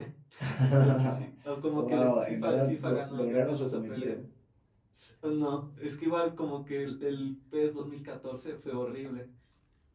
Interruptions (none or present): present